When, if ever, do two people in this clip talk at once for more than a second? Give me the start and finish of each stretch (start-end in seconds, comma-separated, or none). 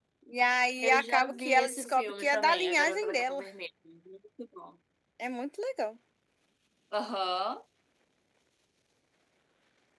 0.8-3.4